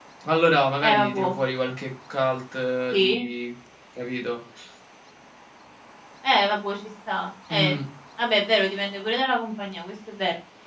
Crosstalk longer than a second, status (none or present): none